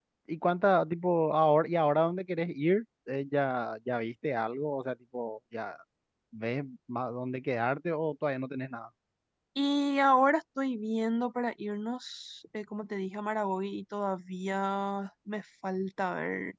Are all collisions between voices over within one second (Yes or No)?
Yes